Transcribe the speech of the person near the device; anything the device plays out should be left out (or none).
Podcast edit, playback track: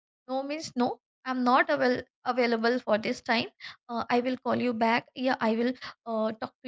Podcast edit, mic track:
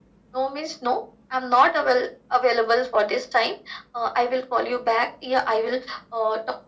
none